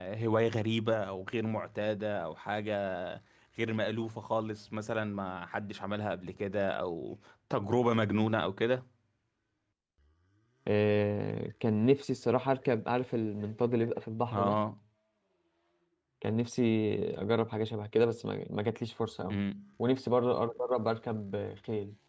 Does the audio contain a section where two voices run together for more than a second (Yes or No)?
No